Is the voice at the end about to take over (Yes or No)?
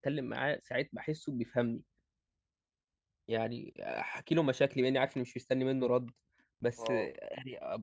No